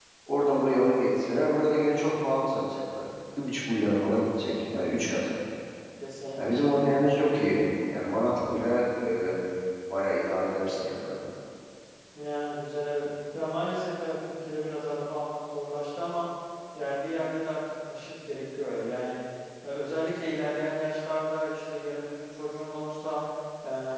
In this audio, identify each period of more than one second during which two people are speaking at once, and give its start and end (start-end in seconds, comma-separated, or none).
none